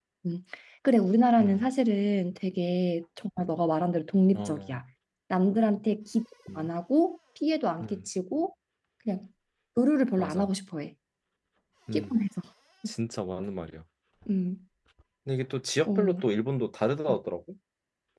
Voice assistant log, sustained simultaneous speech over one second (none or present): none